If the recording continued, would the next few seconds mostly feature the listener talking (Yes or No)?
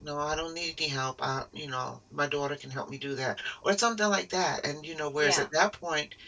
No